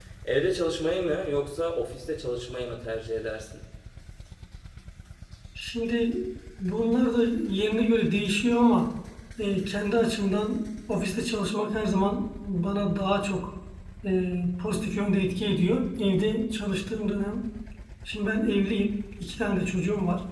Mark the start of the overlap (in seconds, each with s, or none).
none